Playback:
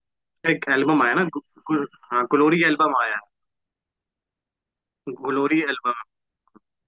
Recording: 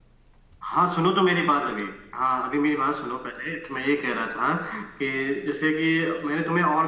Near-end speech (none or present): present